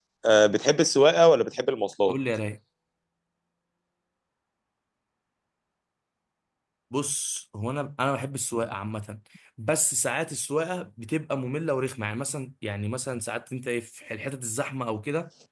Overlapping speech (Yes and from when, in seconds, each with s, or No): No